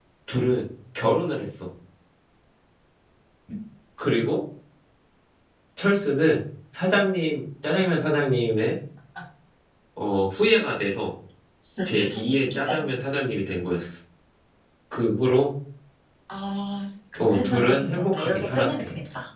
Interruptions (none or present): present